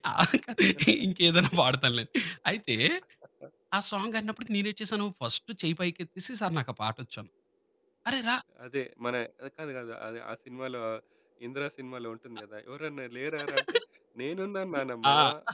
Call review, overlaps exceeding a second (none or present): none